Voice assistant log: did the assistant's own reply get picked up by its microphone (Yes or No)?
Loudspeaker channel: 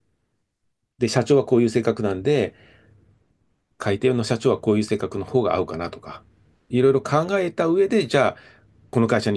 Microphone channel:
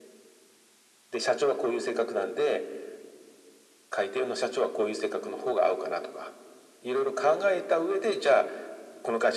Yes